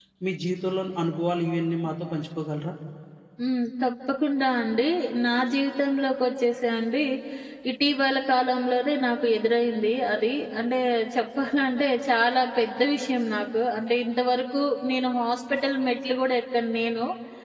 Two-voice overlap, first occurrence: none

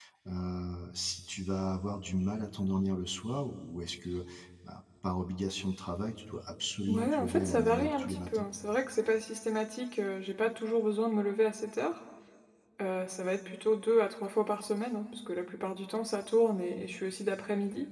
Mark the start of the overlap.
6.8 s

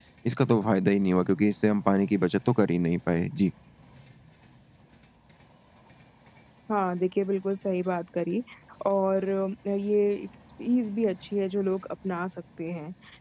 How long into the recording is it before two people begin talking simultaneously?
none

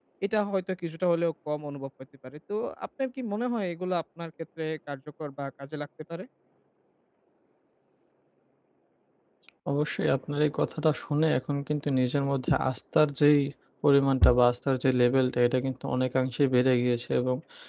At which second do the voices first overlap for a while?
none

